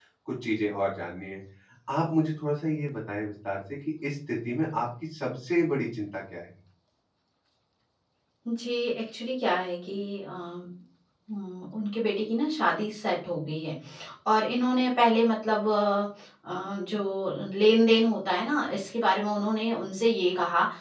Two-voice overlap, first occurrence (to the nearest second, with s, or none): none